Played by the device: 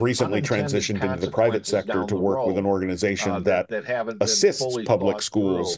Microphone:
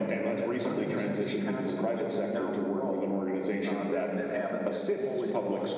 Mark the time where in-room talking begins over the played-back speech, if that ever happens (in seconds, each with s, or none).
none